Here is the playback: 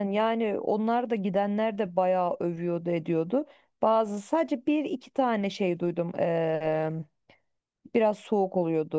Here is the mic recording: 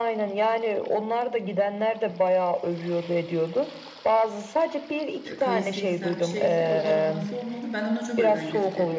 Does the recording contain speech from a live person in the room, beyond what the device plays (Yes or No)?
Yes